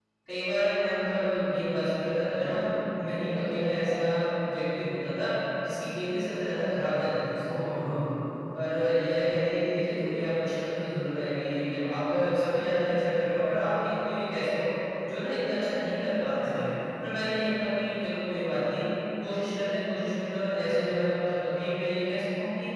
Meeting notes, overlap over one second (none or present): none